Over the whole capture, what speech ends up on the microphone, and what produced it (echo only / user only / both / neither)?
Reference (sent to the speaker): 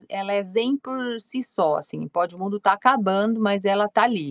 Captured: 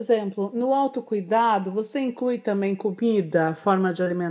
user only